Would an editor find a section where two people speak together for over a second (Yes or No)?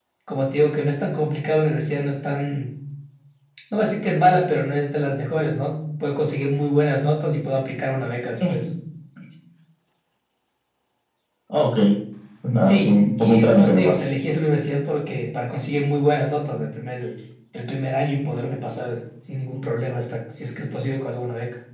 Yes